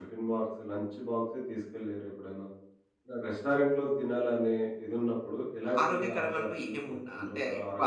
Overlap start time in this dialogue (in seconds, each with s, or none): 5.6 s